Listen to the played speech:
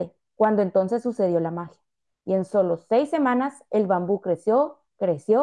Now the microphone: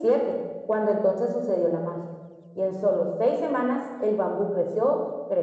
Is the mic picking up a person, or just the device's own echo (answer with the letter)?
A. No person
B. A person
A